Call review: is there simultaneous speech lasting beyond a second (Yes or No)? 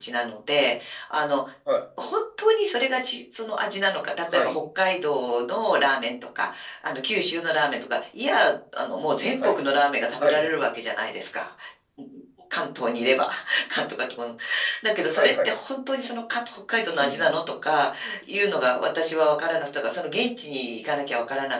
No